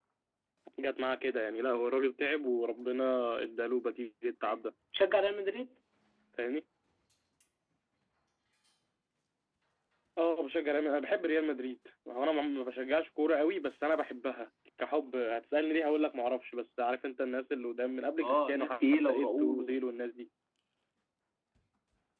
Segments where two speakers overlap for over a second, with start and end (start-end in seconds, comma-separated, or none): 18.2-19.8